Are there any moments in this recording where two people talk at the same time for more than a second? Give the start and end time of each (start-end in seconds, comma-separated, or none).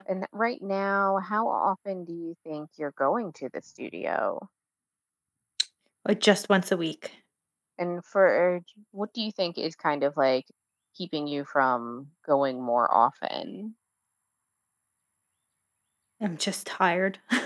none